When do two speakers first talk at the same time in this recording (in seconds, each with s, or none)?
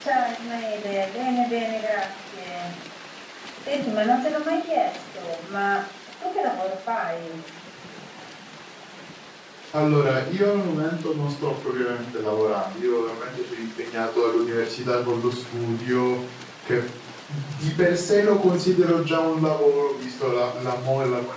none